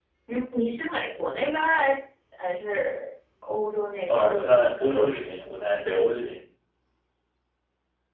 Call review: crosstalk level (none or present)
present